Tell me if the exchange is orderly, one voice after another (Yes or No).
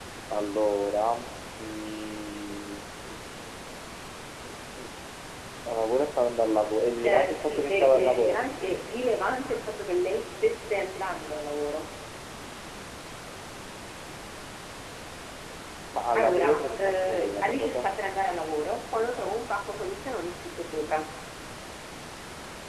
No